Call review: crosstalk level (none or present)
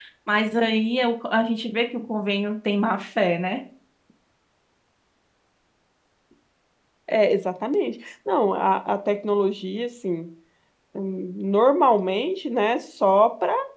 none